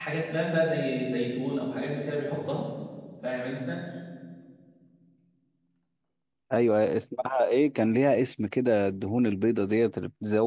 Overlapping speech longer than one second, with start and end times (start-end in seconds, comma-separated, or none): none